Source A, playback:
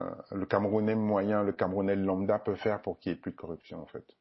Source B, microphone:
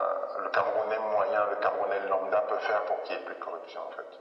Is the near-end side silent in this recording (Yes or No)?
Yes